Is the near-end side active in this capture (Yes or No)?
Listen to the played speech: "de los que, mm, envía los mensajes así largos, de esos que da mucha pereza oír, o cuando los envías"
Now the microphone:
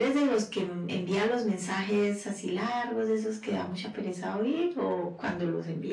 No